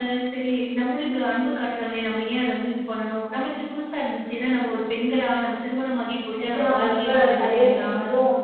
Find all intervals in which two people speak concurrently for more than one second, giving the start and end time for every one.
6.4-7.9

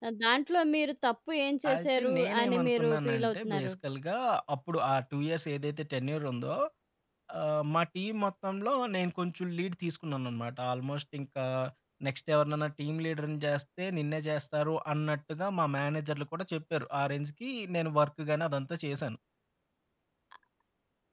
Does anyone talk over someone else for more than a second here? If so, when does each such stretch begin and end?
1.7-3.7

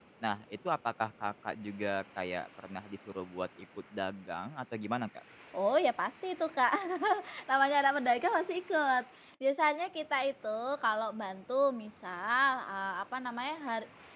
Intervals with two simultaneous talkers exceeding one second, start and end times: none

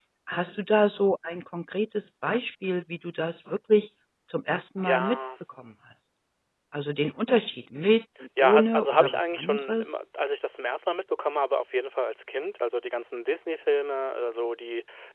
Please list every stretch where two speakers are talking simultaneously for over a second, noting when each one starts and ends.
8.4-9.8

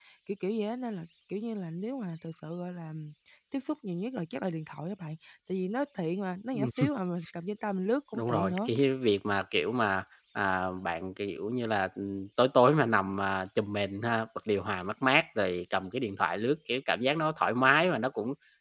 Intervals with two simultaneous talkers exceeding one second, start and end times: none

